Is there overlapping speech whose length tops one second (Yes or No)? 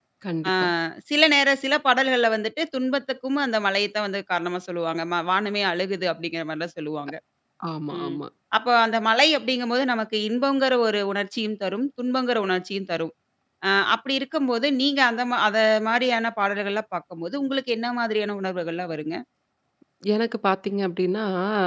No